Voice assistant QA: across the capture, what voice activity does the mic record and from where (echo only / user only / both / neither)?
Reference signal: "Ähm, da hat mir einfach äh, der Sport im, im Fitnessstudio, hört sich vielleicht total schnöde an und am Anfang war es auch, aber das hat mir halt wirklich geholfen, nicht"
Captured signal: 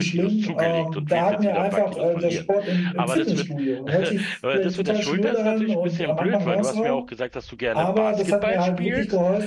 both